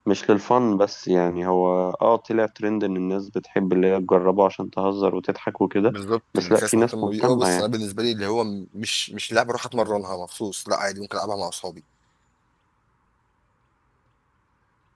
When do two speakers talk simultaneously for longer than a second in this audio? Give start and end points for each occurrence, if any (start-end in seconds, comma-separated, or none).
6.3-7.6